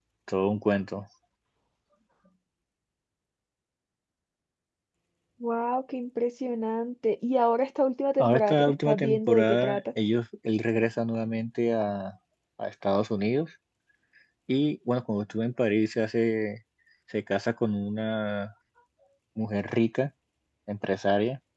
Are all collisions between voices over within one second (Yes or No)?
No